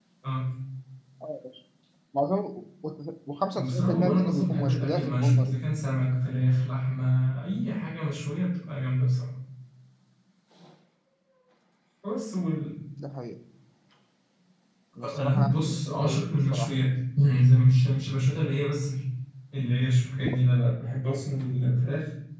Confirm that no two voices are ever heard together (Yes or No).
No